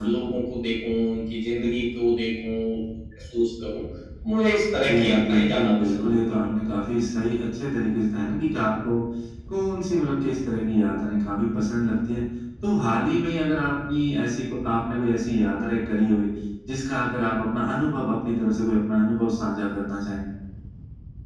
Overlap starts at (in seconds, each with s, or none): 4.9 s